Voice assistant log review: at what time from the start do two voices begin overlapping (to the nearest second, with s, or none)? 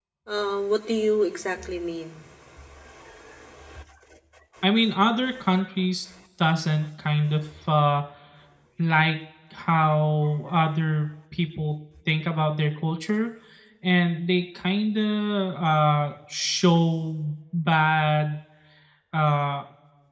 none